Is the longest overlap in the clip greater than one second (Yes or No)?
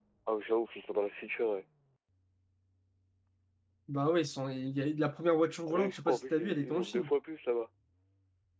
Yes